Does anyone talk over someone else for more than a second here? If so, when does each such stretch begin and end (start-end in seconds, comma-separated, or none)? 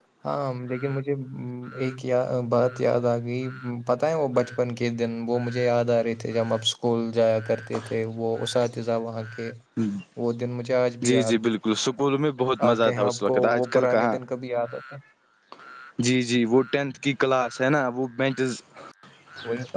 12.7-14.2